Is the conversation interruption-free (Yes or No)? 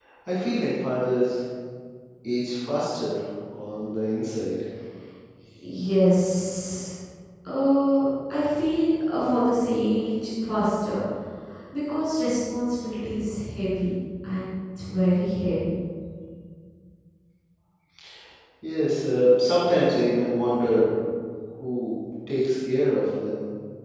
Yes